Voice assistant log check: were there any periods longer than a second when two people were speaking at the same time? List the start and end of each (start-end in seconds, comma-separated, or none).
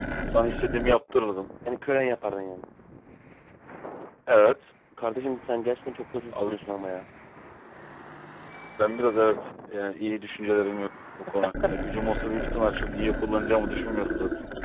none